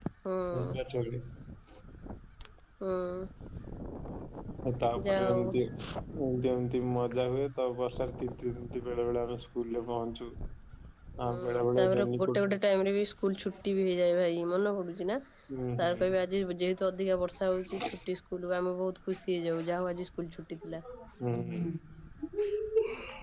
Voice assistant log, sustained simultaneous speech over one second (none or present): present